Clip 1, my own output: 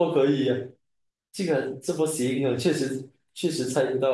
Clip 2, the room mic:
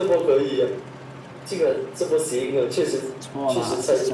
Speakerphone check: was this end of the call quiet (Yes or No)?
No